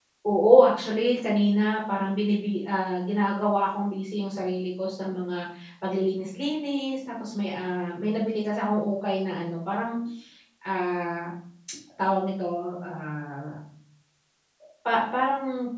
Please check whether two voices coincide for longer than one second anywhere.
No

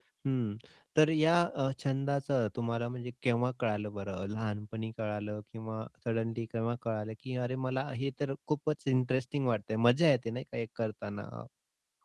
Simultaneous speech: No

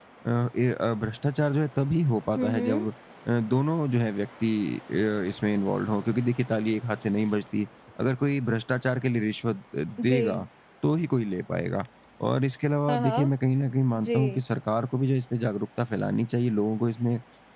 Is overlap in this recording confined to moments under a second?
Yes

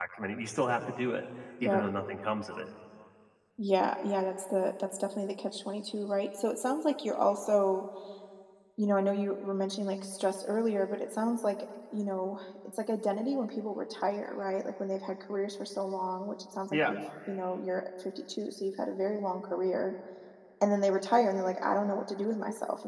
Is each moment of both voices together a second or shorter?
Yes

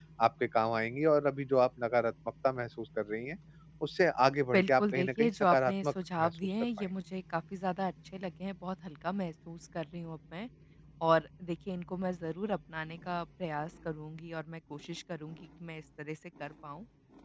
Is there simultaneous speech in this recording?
Yes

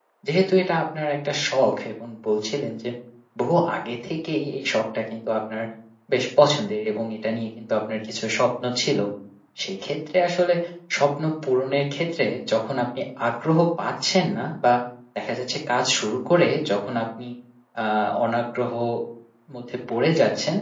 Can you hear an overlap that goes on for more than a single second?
No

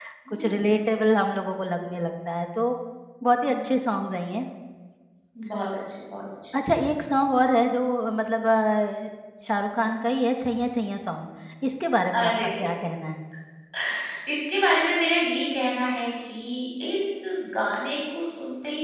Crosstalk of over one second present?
No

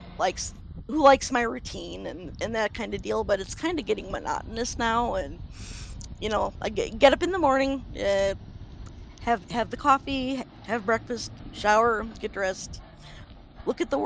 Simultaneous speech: No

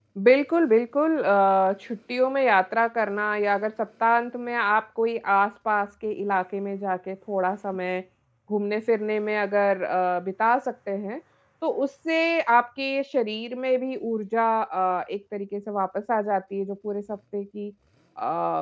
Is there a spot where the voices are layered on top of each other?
No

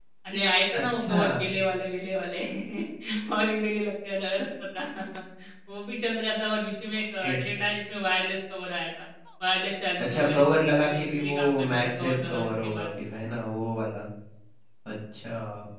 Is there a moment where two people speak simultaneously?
Yes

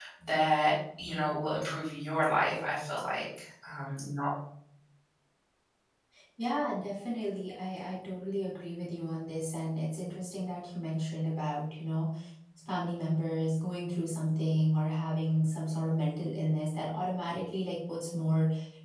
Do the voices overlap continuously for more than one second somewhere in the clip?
No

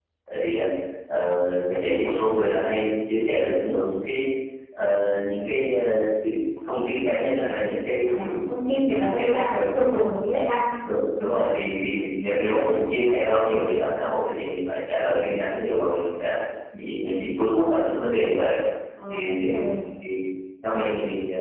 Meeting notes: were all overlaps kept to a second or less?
No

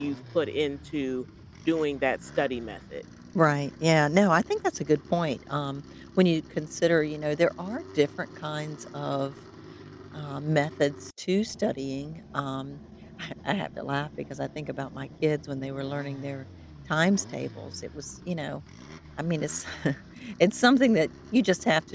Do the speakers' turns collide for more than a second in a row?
No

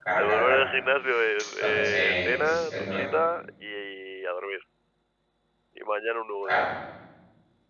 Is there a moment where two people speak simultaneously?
Yes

